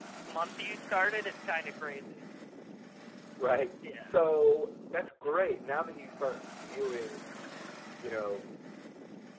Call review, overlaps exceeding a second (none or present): none